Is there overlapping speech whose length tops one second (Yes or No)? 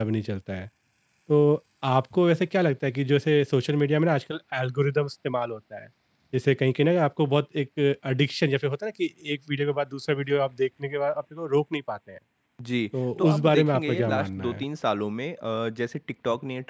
Yes